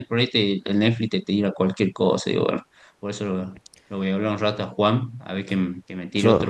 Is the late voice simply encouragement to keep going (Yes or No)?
Yes